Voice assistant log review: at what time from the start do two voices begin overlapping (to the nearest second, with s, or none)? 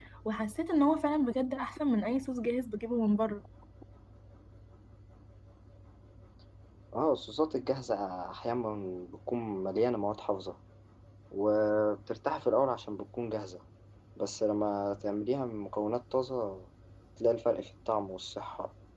none